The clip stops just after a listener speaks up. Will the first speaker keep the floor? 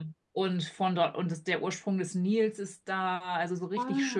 Yes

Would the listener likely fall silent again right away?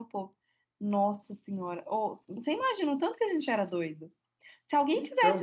Yes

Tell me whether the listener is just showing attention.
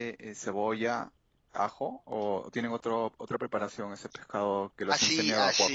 No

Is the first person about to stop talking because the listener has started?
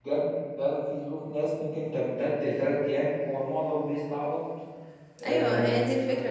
Yes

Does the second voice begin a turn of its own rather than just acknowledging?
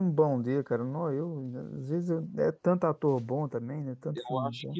Yes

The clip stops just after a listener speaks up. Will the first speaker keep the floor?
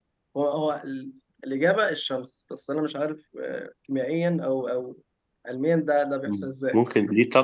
No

